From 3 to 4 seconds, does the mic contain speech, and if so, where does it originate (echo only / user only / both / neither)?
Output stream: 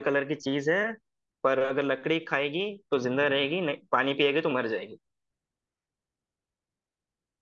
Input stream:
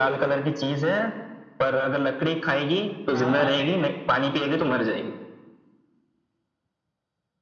both